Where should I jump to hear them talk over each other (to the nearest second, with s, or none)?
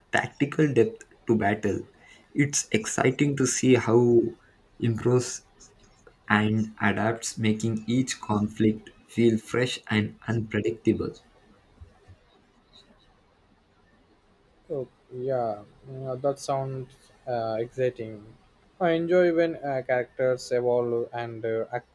none